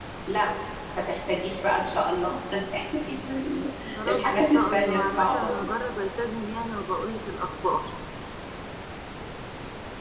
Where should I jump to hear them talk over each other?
4 s

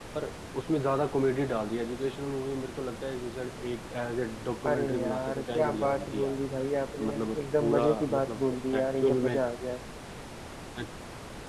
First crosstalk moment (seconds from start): 5 s

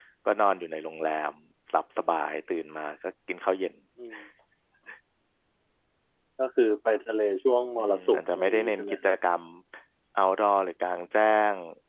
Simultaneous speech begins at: 8 s

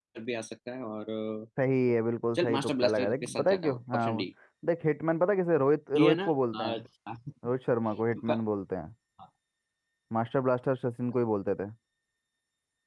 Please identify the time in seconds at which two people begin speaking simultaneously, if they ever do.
2 s

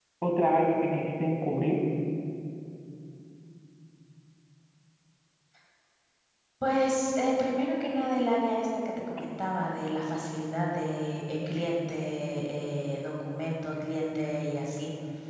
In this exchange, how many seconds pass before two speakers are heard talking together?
none

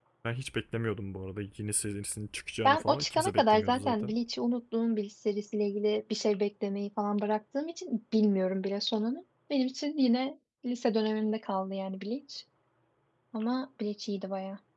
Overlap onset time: 3 s

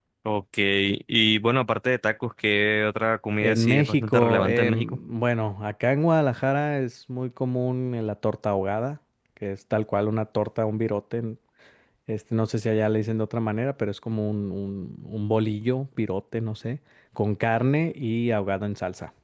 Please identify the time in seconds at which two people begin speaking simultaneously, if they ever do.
3 s

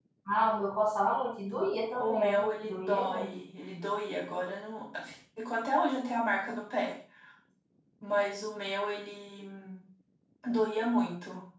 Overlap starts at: 2 s

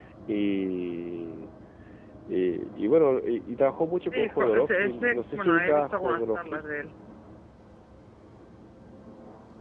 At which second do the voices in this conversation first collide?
4 s

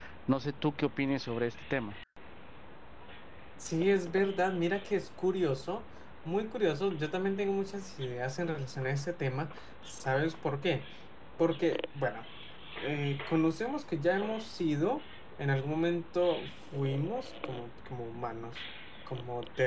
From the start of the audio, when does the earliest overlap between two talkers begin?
none

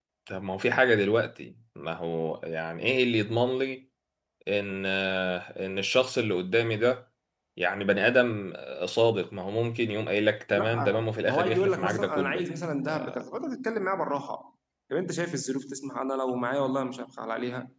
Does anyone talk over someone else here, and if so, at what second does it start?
11 s

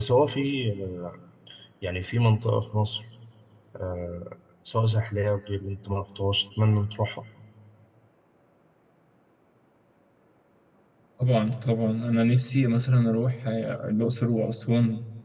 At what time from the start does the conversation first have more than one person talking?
none

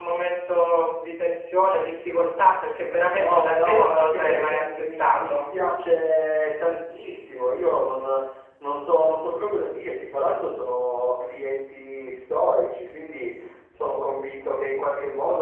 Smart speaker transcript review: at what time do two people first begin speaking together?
3 s

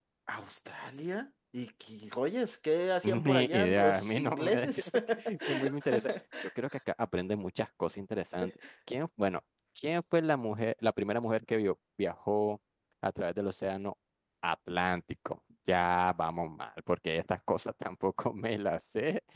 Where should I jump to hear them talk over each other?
3 s

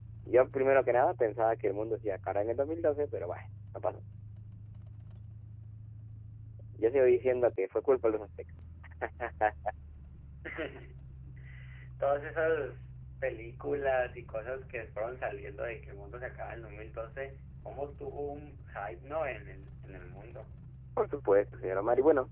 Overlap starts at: none

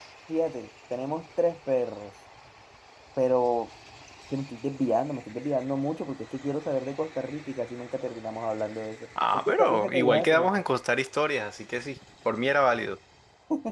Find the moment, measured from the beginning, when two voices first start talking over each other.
9 s

